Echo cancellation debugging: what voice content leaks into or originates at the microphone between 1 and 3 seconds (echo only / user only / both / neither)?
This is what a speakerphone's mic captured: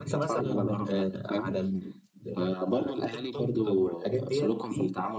echo only